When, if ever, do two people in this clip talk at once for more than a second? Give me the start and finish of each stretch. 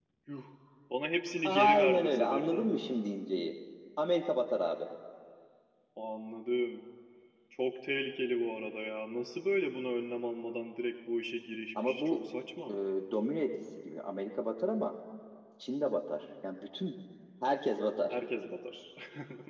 1.4-2.7

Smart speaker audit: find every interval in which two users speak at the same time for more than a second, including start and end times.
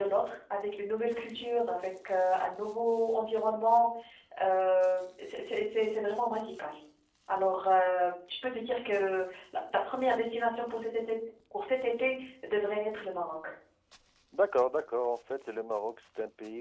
none

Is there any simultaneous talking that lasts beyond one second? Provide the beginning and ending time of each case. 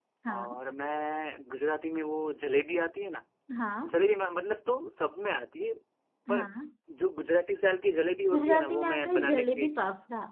8.3-9.7

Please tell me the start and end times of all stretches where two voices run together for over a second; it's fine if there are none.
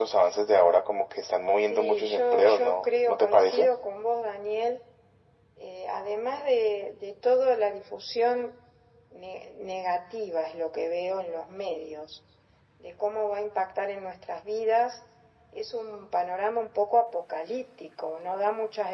1.6-3.7

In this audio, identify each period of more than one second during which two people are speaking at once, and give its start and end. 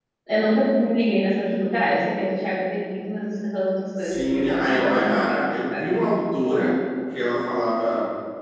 4.0-5.8

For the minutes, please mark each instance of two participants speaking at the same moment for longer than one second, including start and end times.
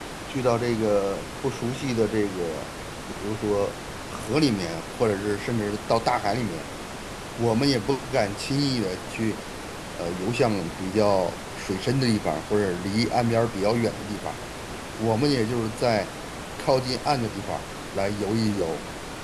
none

